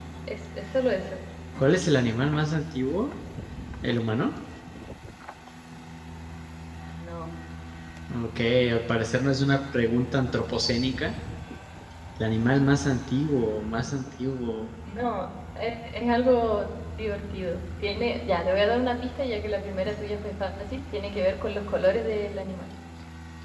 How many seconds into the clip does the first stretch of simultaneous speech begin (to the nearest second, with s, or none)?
none